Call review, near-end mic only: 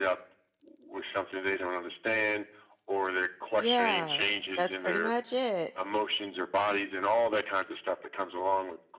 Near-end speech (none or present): present